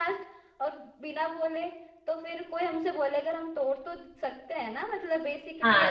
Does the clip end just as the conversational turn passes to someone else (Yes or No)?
Yes